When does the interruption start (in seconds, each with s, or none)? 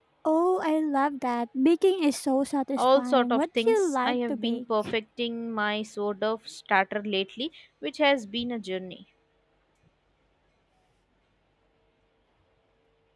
2.8 s